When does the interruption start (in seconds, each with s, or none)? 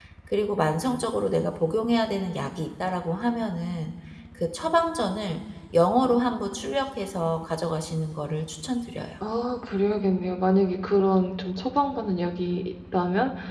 none